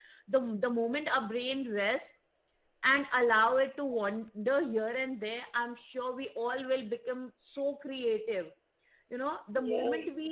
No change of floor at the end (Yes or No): Yes